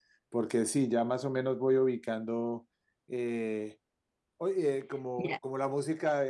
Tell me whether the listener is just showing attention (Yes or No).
Yes